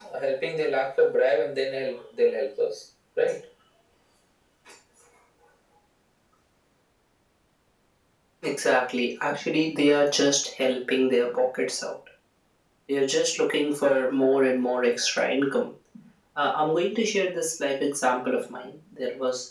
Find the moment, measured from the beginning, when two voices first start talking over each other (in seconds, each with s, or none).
none